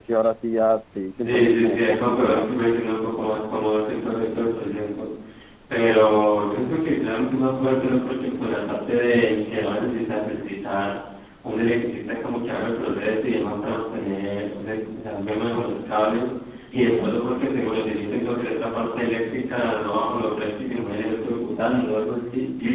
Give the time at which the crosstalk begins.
1.2 s

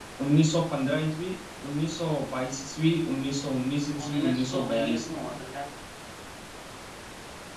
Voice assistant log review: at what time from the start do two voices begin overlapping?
4.0 s

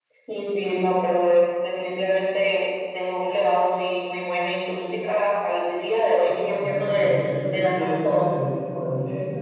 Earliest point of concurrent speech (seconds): 6.2 s

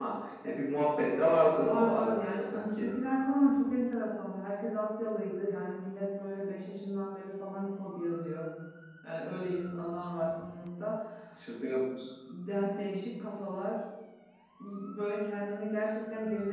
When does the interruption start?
1.6 s

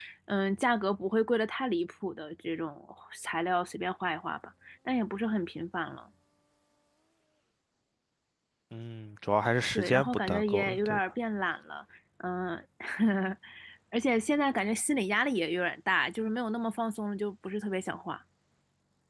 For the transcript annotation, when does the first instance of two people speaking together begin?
9.8 s

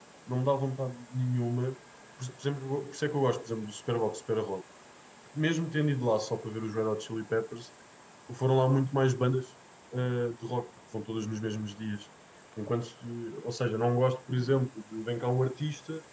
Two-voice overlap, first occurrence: none

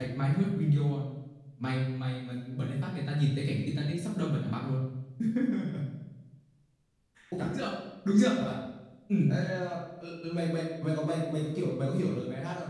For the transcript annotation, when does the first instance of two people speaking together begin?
none

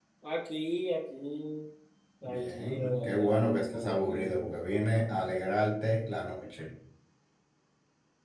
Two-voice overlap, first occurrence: 2.2 s

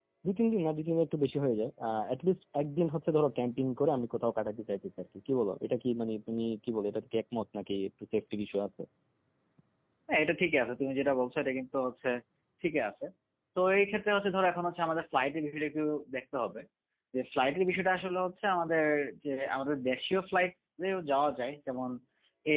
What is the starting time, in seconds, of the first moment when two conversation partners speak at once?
none

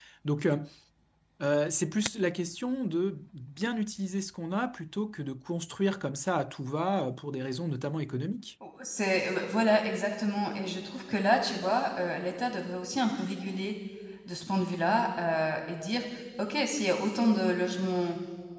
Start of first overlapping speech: none

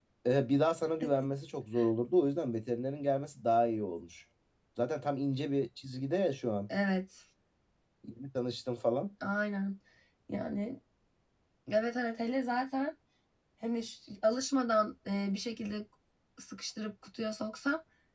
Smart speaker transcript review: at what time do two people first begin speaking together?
none

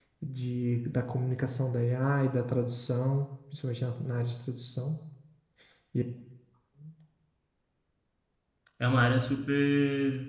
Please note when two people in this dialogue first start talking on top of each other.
none

